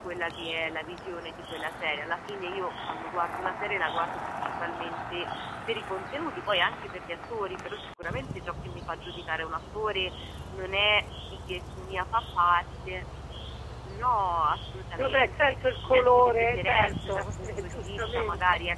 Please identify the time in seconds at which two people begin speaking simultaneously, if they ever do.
14.9 s

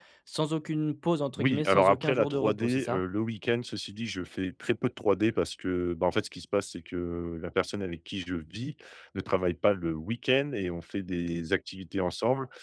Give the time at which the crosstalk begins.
1.4 s

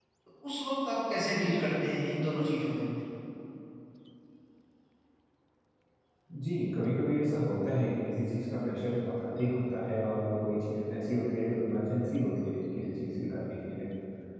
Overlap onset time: none

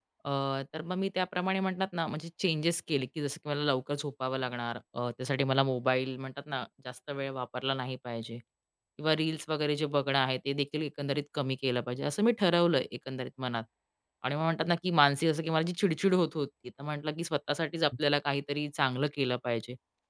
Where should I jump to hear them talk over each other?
none

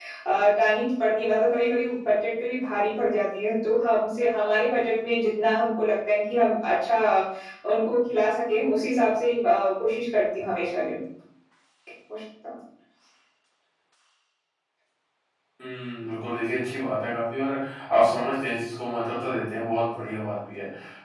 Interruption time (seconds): none

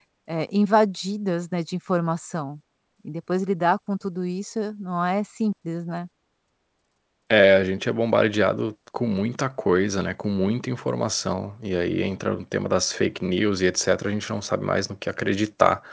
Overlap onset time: none

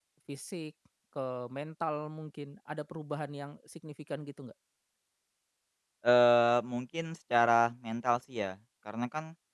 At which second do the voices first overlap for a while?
none

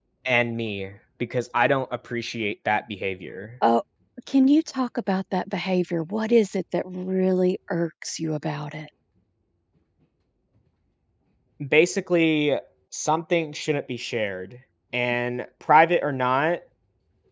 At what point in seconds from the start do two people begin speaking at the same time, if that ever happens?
none

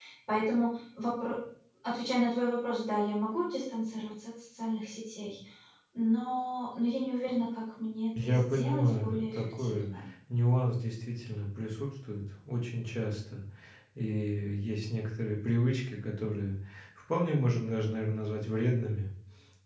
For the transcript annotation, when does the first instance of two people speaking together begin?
8.2 s

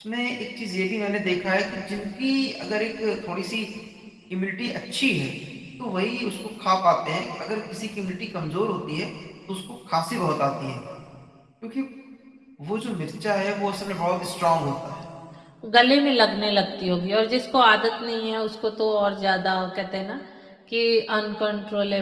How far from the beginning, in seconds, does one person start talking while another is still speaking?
none

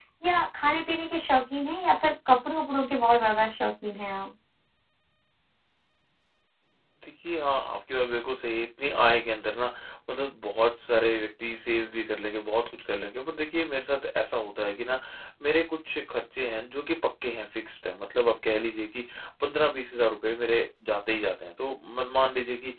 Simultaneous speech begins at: none

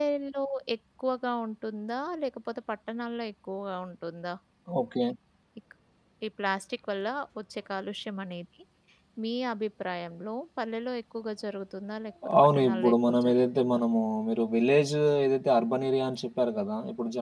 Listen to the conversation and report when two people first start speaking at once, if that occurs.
12.2 s

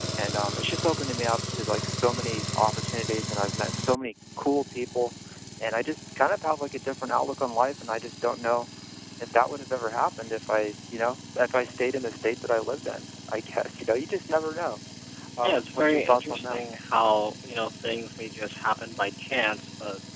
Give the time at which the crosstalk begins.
15.4 s

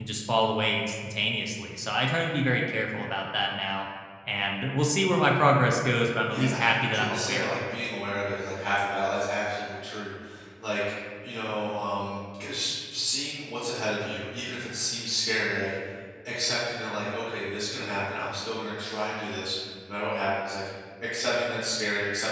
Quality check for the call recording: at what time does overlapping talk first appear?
6.3 s

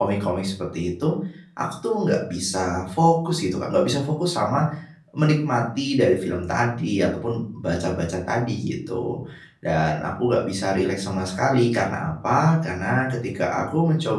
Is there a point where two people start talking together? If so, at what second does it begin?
none

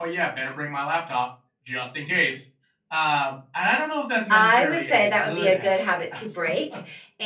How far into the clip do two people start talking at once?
4.3 s

